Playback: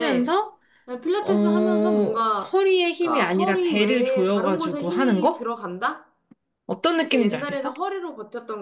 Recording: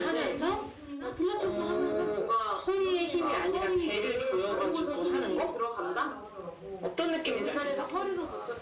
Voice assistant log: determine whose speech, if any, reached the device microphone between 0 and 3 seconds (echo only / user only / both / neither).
both